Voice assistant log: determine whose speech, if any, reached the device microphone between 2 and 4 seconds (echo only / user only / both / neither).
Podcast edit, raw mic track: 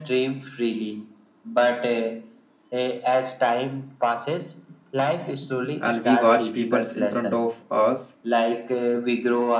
echo only